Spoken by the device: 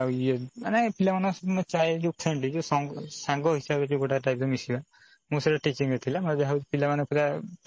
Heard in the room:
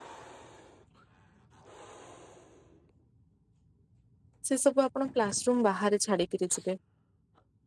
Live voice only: ସେ ସବୁ ଆପଣ କ୍ଲାସ ରୁମ୍ ବାହାରେ ଛାଡିକିରି ଯିବେ।

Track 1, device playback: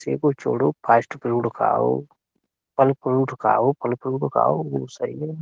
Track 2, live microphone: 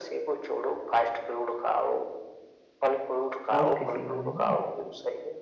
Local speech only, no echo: اور کسی کا نہیں نا

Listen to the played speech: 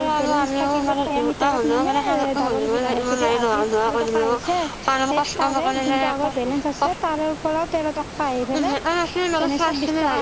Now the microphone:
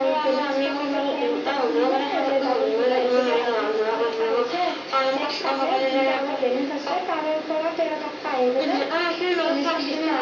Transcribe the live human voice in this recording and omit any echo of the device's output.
none

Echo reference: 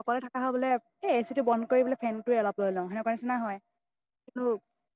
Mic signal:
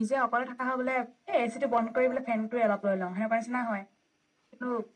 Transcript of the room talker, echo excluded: none

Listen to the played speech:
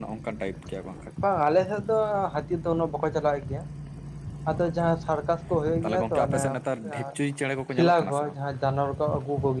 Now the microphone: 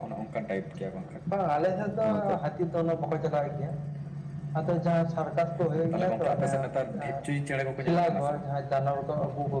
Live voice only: ᱟᱱᱚᱝᱠᱟ

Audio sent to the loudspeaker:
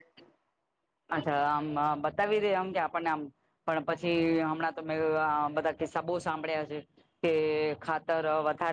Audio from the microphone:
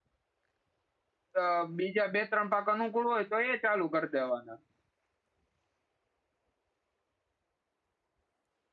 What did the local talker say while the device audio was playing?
અ બીજા બે ત્રણ પાક અનુકૂળ હોય તો એ ચાલુ કરી દેવાના.

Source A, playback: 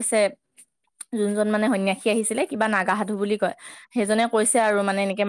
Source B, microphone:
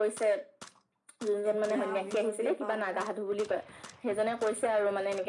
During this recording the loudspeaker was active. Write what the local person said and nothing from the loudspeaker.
এতিয়া আমি যদি বামুন

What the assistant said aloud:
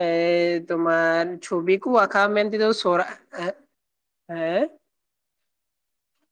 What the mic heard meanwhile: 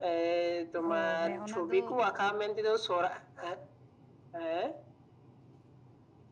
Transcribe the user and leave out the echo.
ᱚ ᱢᱮ ᱚᱱᱟ ᱫᱚ

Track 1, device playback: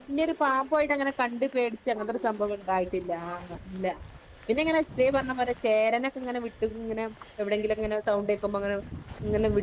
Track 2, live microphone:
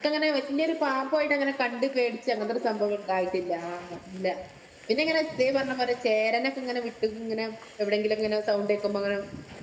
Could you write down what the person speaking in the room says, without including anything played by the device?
none

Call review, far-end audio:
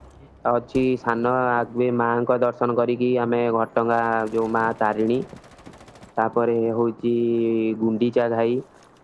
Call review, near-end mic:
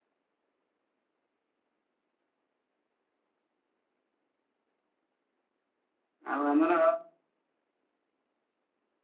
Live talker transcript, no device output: ଆଉ ଆମର

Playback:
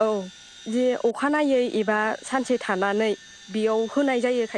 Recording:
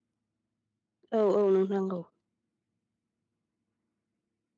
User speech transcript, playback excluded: औ औ नोंथां औ

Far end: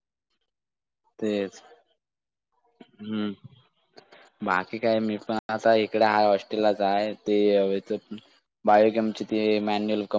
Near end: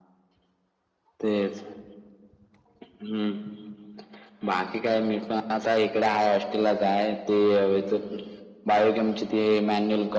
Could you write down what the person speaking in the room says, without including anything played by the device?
none

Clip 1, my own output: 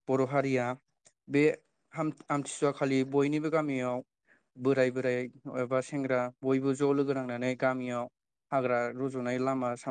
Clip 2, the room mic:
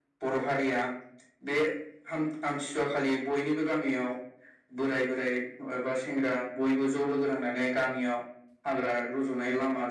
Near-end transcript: none

